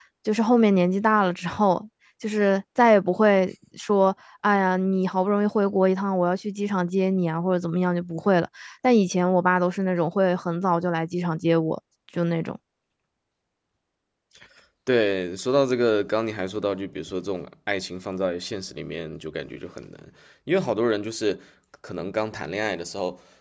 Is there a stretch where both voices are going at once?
No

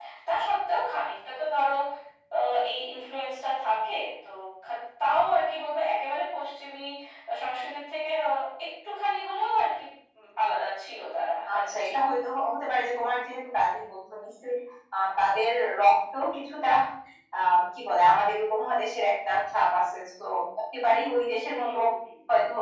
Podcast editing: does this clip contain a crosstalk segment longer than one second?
No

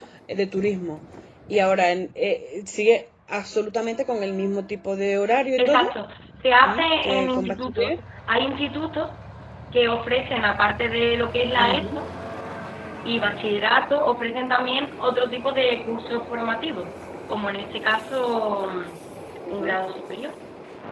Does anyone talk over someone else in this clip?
Yes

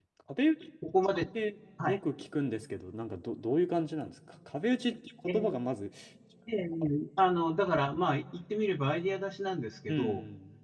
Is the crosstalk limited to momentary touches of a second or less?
Yes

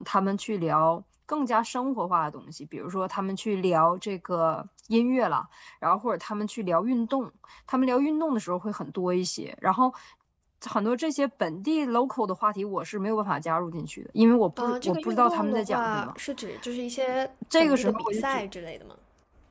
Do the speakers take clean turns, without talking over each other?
No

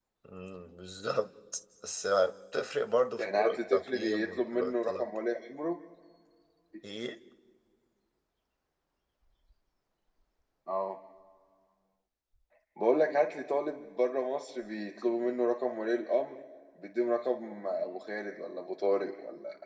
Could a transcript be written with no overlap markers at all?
No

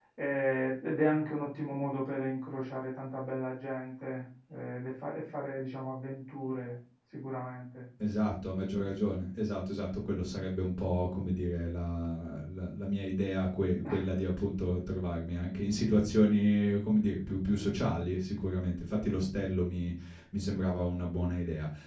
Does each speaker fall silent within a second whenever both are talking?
Yes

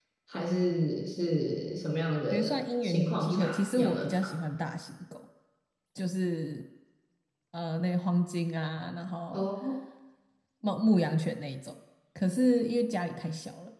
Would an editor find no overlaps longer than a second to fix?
No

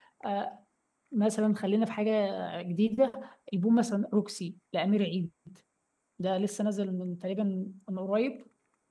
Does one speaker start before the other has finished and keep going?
No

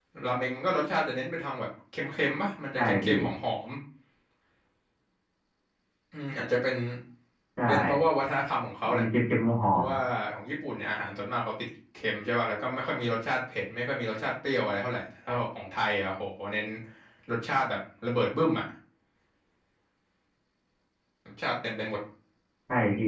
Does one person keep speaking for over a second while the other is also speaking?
No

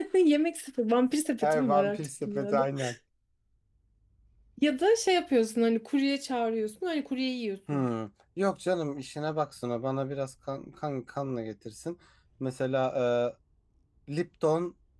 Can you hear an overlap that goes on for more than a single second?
Yes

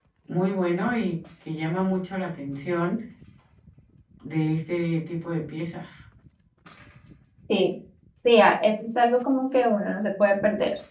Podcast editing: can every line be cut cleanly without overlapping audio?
Yes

